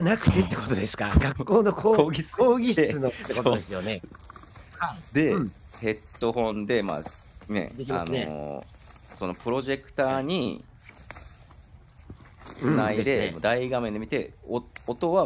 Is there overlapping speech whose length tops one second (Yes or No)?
Yes